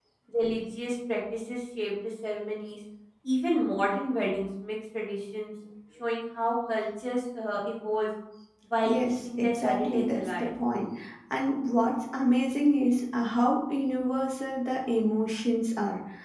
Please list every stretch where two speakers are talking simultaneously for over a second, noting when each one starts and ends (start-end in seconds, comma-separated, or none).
8.8-10.5